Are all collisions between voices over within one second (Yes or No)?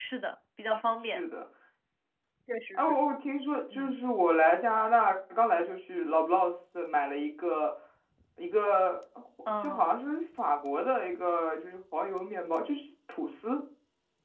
Yes